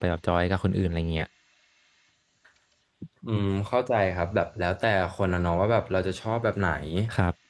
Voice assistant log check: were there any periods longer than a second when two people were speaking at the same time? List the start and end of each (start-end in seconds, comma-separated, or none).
none